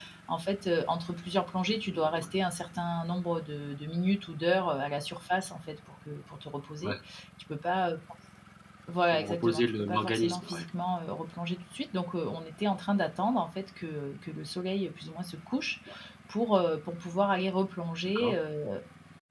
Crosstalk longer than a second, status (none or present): present